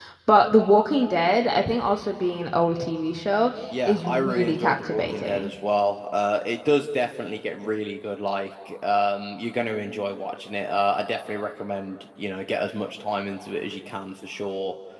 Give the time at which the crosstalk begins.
3.7 s

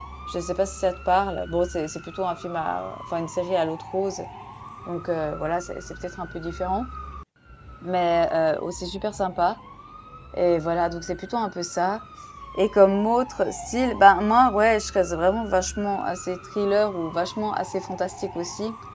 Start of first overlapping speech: none

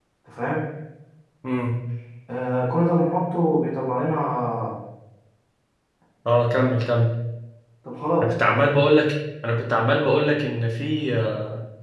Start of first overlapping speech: none

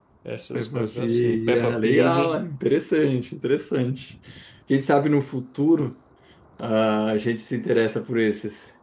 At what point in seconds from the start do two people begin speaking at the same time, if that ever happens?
0.5 s

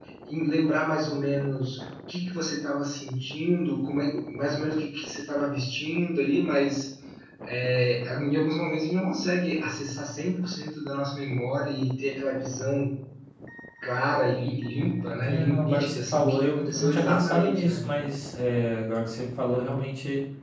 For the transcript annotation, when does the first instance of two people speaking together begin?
15.2 s

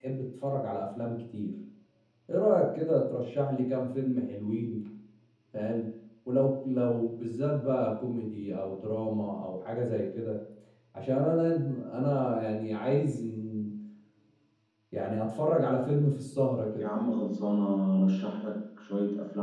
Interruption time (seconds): none

